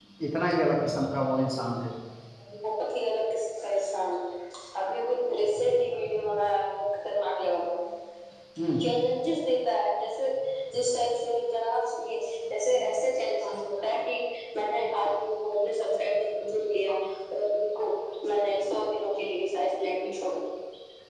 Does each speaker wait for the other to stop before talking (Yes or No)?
Yes